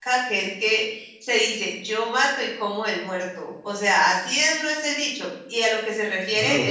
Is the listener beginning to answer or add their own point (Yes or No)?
No